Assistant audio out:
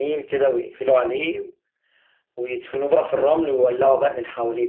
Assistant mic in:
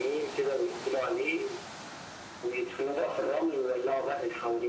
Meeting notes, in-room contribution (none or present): none